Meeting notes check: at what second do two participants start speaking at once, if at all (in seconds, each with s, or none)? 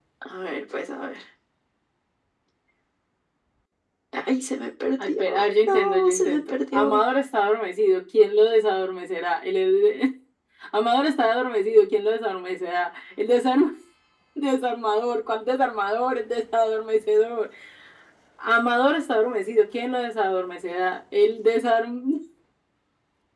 5.0 s